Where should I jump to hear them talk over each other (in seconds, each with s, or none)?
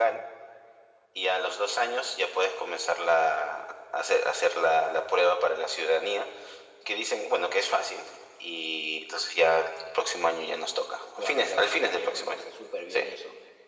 11.2 s